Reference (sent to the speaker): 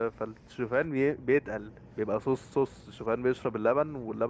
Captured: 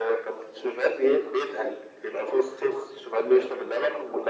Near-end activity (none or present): none